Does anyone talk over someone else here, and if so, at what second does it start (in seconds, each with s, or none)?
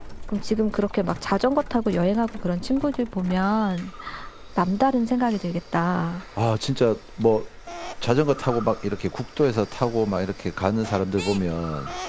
none